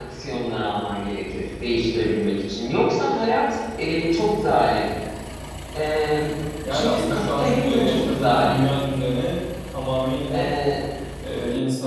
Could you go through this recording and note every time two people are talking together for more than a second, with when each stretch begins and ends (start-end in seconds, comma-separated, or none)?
6.7-8.7